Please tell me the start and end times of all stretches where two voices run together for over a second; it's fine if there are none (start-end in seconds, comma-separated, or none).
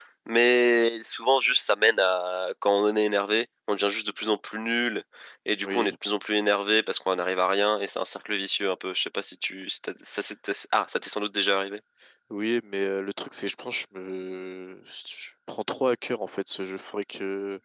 none